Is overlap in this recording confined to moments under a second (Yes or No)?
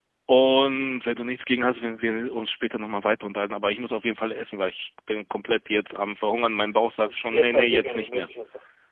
No